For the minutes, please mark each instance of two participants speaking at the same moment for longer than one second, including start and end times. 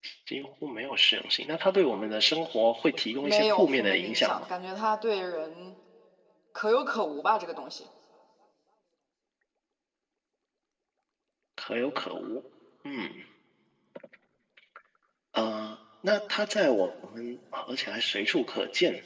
3.2-4.5

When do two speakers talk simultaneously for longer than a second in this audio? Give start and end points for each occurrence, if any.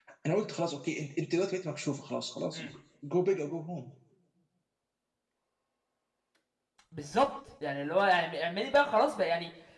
none

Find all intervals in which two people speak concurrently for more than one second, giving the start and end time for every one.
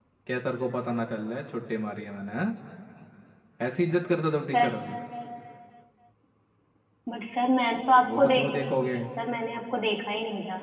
none

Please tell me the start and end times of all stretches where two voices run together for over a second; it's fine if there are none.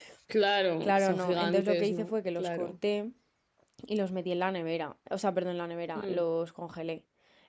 0.8-2.7

